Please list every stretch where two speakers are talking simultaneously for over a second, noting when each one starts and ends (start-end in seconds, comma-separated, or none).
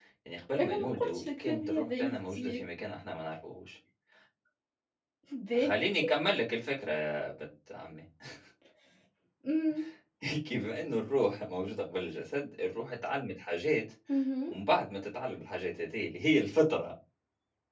0.6-2.6